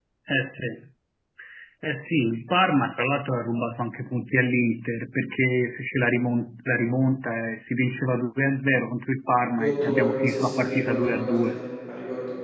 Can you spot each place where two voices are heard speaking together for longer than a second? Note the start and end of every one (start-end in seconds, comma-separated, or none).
9.6-11.6